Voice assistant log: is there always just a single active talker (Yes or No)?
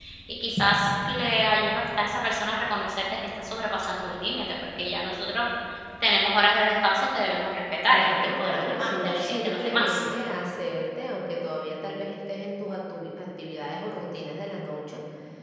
No